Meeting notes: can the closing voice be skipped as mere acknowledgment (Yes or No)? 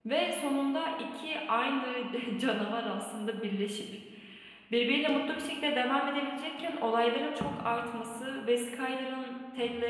Yes